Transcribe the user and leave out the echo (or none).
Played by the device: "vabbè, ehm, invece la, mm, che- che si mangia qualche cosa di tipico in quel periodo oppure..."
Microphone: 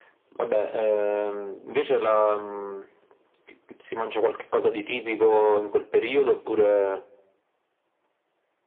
none